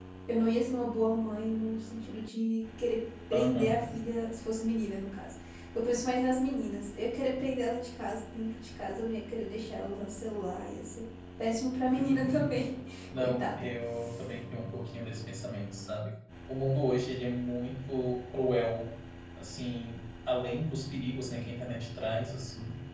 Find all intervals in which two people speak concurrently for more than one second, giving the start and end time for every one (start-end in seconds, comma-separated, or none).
none